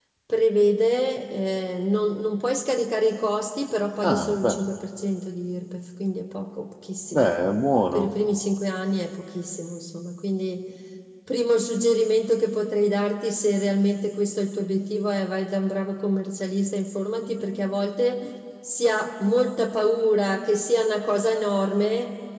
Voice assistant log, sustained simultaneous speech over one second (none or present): none